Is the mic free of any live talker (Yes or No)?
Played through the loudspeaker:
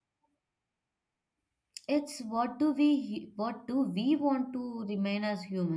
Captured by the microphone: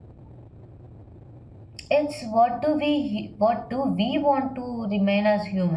Yes